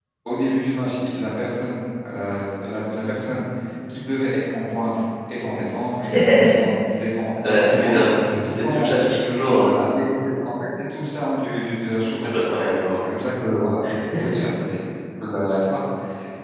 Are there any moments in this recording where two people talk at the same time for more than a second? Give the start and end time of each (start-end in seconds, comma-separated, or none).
7.4-8.9